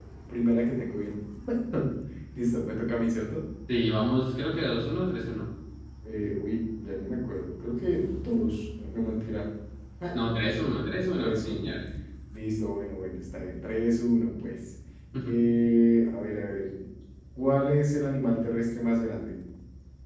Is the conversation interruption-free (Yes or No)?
No